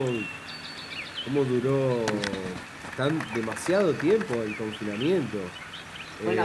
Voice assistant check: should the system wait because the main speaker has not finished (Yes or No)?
No